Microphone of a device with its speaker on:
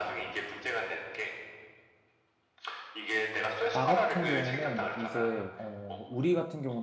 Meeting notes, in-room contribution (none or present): present